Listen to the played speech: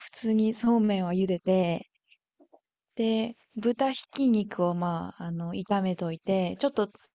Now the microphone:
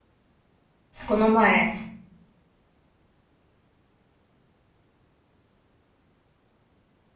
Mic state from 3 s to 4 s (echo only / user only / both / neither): neither